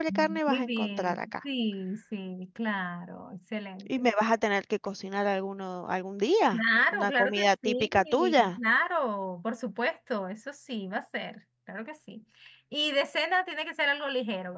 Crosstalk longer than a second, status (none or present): present